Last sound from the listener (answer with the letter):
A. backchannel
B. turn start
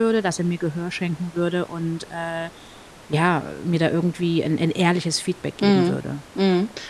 B